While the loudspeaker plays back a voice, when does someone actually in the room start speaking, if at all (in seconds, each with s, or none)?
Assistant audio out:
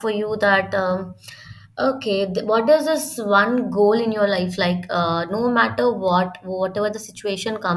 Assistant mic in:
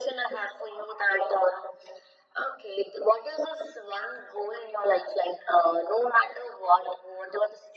none